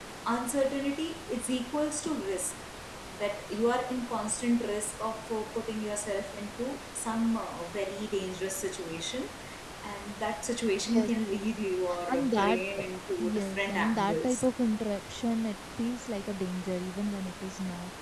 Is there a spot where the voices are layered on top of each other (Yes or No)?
Yes